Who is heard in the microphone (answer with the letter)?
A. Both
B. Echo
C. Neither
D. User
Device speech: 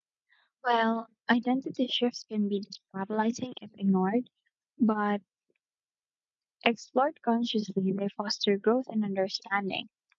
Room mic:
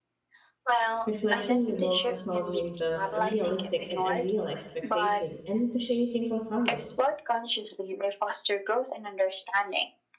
A